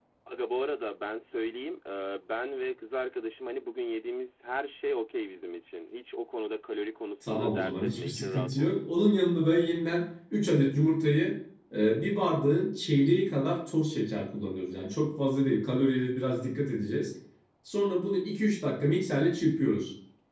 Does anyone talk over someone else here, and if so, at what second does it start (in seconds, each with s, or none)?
7.2 s